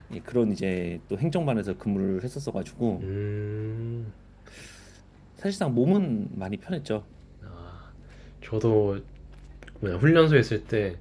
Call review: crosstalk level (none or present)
none